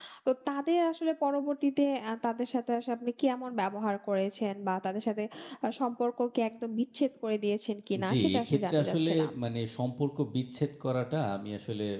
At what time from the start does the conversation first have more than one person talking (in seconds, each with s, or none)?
8.0 s